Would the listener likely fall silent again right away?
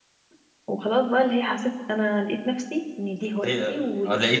No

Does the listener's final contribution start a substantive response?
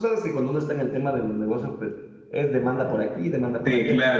Yes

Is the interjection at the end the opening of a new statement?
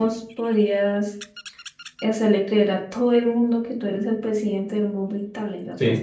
Yes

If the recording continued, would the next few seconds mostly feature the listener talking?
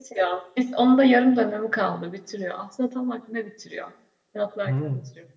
Yes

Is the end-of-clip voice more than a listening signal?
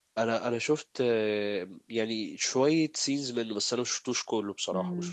Yes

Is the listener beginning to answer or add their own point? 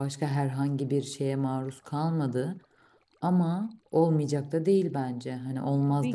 Yes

